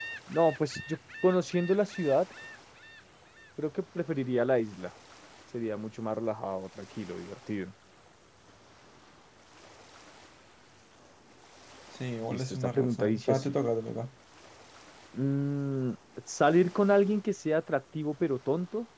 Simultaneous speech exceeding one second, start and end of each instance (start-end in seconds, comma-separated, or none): 12.3-13.6